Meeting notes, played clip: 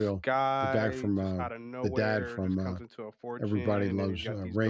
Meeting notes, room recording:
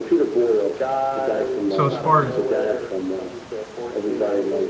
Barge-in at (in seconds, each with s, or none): 1.7 s